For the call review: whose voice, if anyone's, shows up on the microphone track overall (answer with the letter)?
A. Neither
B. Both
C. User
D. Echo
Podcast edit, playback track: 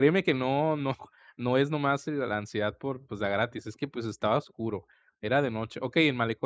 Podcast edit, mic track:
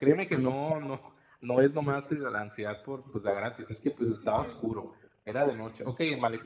B